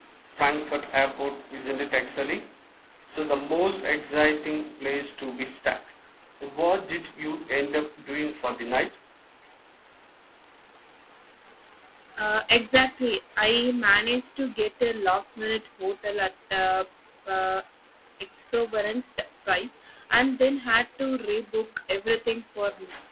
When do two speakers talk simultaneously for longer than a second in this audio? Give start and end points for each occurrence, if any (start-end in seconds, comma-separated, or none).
none